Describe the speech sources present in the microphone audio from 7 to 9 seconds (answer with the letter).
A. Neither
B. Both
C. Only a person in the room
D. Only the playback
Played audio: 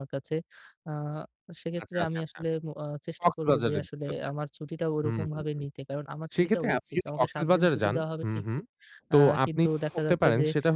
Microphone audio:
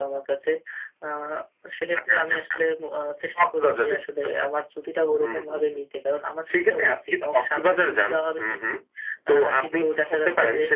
D